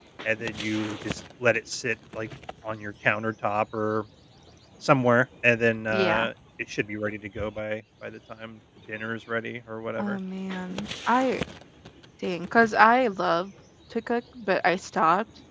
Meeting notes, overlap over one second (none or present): none